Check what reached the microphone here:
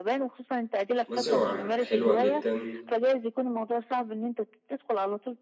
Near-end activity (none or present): present